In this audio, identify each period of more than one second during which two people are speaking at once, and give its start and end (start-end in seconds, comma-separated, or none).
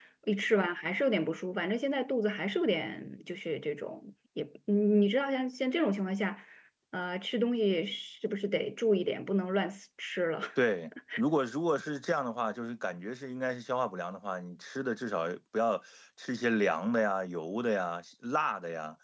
none